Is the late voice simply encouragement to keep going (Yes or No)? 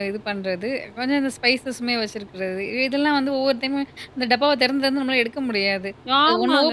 No